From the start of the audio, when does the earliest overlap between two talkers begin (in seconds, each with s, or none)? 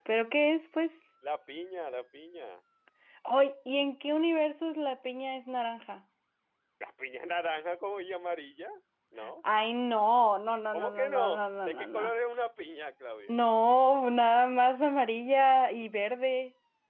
10.7 s